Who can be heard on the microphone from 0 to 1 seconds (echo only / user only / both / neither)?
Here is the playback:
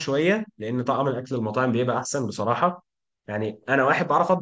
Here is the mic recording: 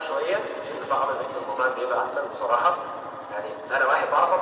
echo only